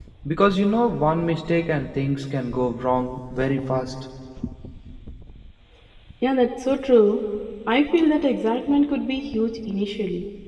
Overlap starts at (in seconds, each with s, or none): none